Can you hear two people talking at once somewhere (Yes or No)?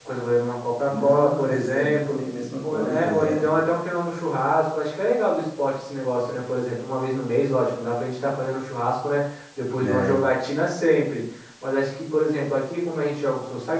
Yes